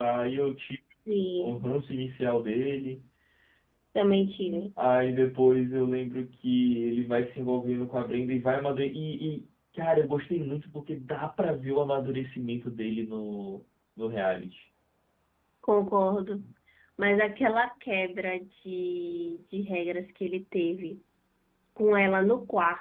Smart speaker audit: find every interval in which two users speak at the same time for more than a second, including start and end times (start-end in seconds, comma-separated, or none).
none